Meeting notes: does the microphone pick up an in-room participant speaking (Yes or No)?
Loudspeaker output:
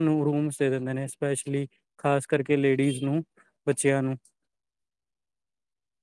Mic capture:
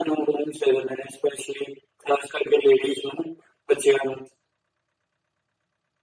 No